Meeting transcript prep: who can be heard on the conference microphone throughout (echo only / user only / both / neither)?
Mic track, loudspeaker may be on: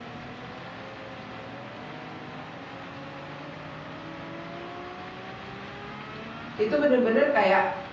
user only